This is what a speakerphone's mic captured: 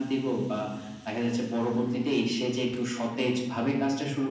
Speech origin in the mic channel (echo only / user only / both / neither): echo only